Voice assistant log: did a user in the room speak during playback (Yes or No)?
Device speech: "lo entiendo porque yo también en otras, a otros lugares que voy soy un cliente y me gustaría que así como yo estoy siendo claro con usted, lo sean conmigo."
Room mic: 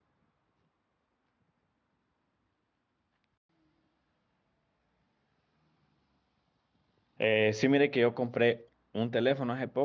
Yes